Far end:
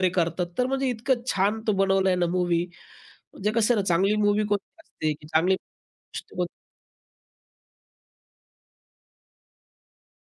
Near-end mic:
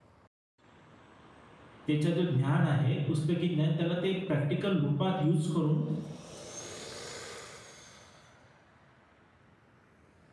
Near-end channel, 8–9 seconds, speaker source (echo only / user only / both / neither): neither